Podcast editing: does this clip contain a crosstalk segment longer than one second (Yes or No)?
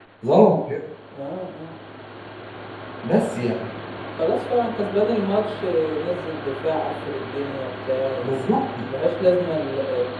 No